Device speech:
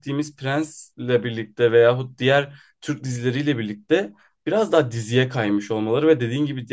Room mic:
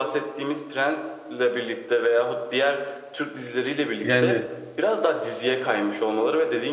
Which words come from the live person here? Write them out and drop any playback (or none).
Yani